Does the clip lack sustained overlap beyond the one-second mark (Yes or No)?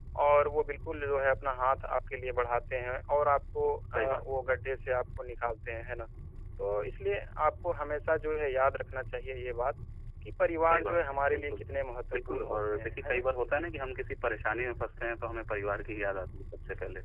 No